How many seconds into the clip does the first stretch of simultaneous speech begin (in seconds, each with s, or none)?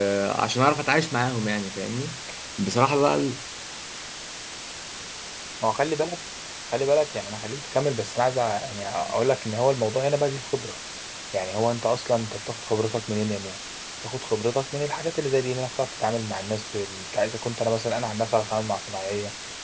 none